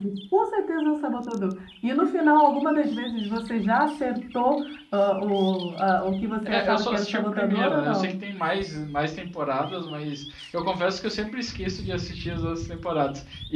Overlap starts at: 6.5 s

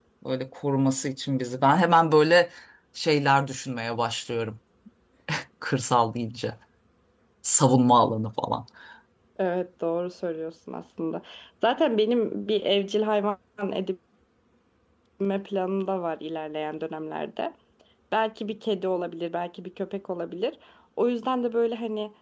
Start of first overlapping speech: none

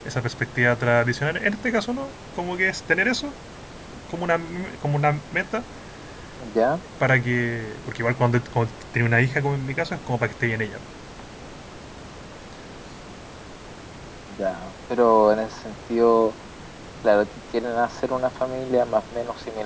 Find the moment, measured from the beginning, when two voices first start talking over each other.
none

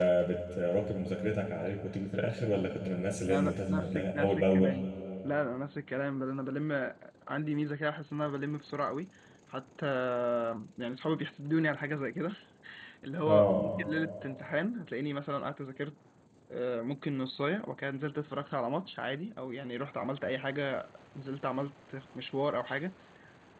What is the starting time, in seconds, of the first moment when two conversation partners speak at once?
3.3 s

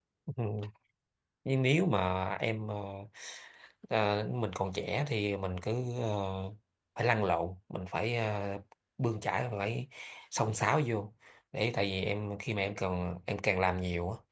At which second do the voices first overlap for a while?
none

